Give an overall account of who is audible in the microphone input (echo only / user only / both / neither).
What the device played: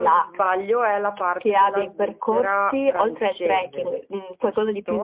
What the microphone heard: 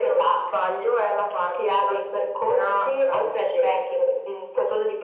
echo only